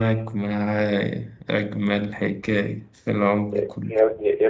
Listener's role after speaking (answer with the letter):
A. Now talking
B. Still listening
A